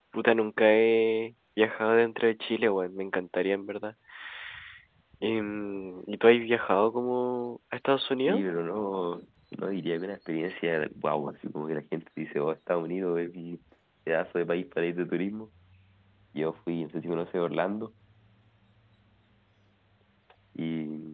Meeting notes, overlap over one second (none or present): none